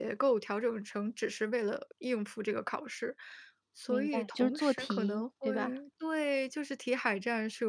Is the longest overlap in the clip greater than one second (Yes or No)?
Yes